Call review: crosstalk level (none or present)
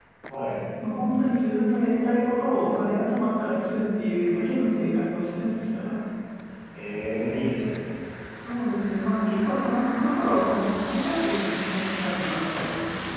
none